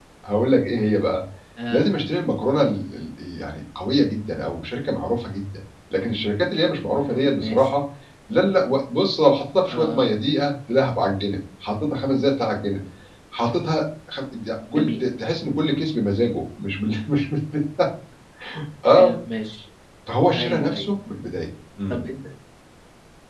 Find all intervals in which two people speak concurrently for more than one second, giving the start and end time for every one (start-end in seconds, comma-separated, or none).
none